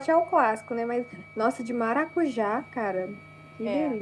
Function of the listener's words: taking over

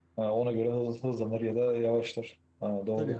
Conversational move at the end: taking over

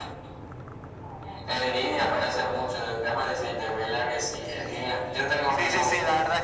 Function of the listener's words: taking over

